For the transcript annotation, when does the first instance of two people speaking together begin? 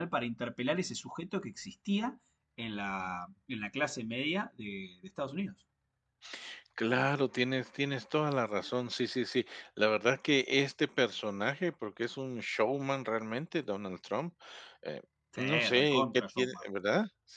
15 s

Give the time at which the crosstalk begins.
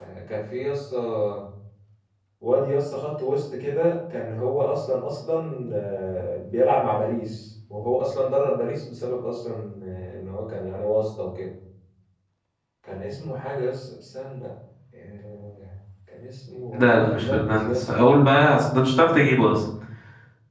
17 s

